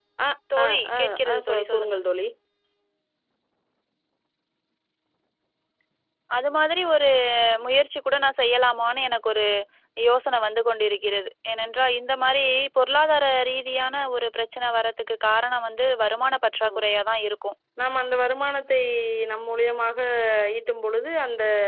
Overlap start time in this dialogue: 0.6 s

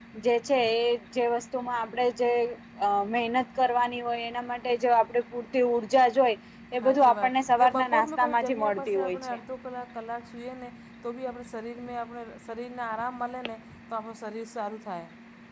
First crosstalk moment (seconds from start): 6.8 s

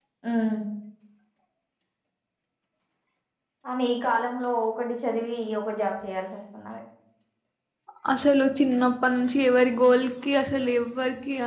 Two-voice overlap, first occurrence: none

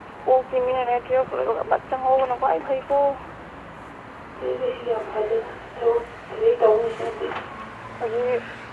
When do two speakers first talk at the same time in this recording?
none

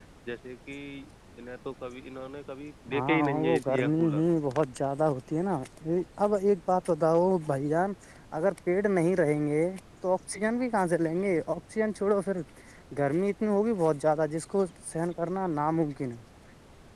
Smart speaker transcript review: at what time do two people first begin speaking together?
2.9 s

